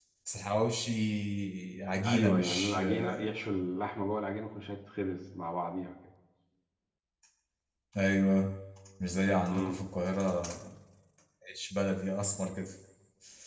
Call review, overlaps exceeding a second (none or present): present